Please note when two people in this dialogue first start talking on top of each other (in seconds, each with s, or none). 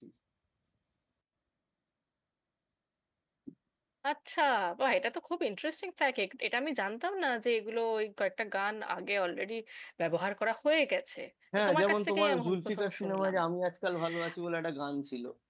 11.6 s